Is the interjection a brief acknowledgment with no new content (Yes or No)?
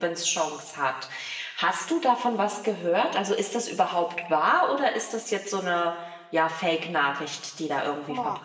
No